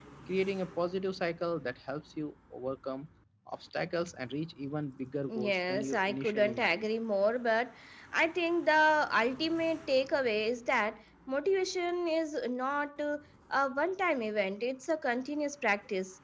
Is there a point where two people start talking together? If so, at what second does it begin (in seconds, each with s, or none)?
5.3 s